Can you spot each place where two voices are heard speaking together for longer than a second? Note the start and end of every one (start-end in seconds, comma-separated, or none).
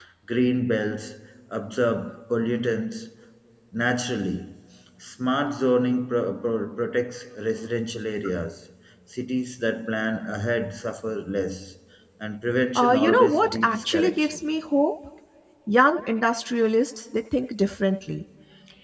12.8-14.3